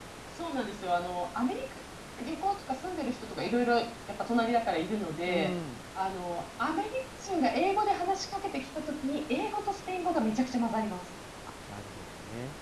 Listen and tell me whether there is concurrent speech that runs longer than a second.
No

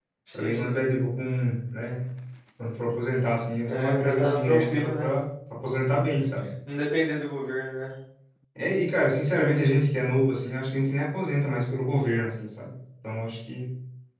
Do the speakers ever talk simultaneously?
Yes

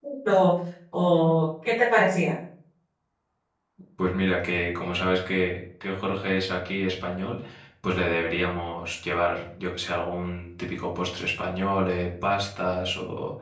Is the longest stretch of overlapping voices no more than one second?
Yes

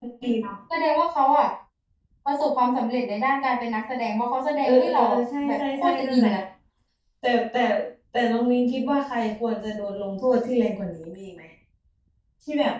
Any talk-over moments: Yes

